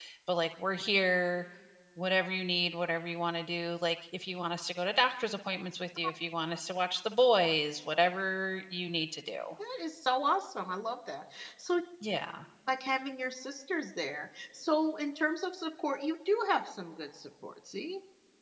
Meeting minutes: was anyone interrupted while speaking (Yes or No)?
No